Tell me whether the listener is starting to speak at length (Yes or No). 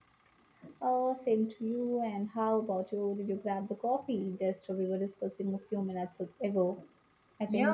Yes